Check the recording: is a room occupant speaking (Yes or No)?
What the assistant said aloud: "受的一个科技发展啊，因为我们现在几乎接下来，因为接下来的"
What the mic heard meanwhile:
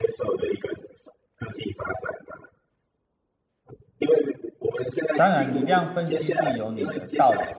Yes